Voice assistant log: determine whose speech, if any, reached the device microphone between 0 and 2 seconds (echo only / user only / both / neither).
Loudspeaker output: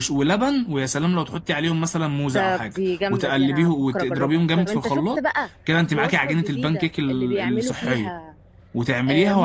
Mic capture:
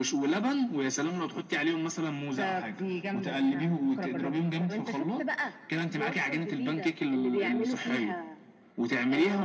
echo only